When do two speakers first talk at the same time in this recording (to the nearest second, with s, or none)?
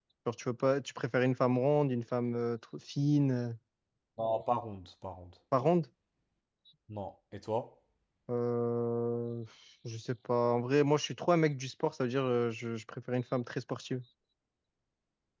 none